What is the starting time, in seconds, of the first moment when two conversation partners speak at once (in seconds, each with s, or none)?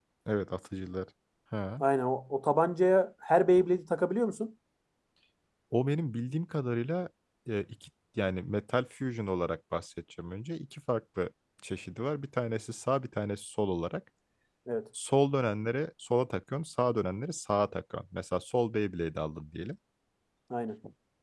none